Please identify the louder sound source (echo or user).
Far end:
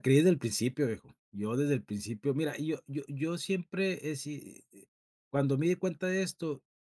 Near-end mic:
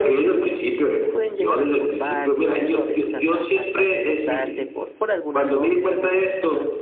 echo